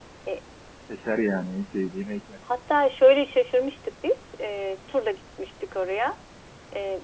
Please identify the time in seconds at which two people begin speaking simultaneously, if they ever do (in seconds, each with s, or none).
none